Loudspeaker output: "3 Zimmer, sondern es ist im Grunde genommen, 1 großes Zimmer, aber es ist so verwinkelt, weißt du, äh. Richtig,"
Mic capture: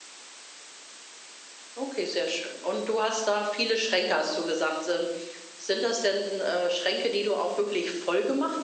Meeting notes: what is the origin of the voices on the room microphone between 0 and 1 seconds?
neither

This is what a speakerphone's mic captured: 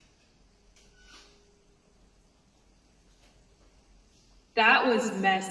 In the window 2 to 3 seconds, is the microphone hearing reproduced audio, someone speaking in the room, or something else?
neither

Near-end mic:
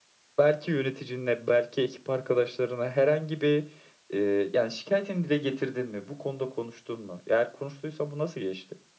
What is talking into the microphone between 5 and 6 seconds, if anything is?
echo only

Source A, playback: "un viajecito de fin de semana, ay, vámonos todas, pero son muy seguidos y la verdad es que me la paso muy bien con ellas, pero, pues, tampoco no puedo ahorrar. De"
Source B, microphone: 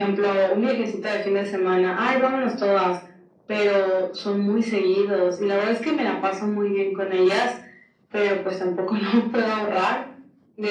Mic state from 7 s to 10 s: echo only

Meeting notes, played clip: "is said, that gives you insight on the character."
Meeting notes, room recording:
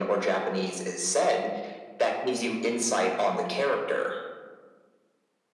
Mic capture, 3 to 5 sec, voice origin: echo only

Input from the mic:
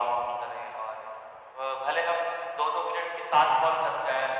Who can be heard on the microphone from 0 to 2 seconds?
echo only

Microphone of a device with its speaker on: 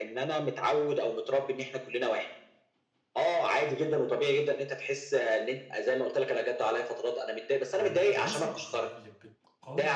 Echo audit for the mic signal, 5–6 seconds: echo only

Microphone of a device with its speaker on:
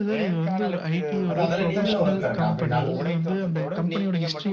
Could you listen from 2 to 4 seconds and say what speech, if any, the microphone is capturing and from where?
both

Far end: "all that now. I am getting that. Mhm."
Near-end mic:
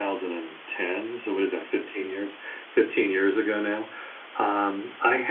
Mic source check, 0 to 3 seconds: user only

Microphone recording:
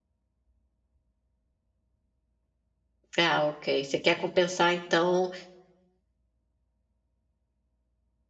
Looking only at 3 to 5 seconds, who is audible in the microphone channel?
user only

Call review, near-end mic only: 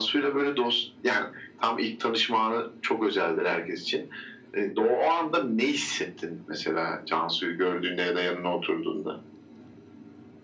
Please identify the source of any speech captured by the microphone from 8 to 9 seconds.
echo only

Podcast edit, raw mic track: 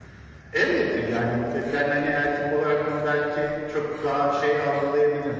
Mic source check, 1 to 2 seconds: echo only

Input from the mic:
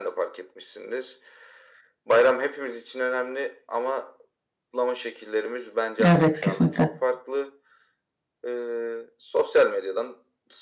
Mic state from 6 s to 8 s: both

